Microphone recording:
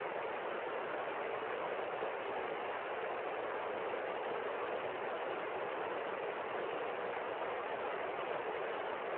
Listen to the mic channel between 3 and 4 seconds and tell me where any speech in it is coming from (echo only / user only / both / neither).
neither